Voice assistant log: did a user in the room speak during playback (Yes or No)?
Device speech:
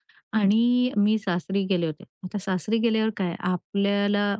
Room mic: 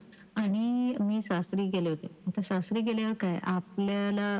No